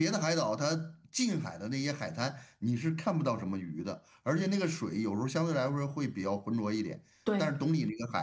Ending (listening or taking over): listening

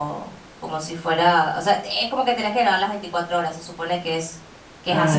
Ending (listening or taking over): taking over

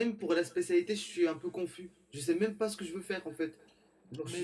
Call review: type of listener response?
taking over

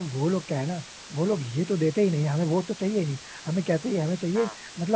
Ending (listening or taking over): listening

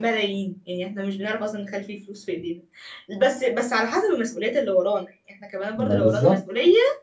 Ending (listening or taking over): listening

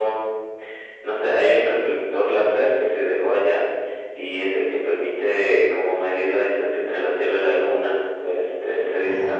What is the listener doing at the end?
listening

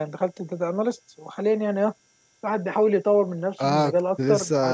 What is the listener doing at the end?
taking over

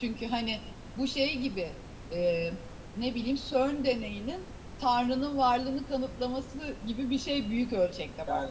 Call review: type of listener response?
taking over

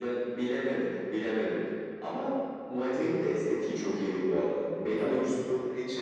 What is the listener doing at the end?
listening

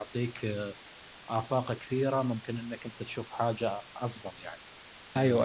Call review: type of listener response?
taking over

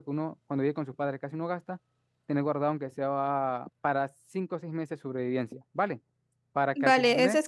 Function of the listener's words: taking over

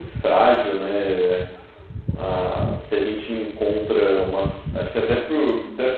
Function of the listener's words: listening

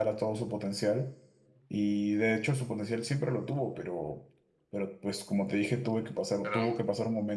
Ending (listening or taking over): listening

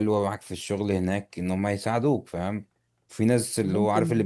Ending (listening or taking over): listening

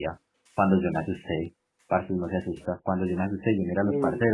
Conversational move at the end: listening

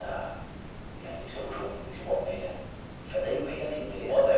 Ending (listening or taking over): listening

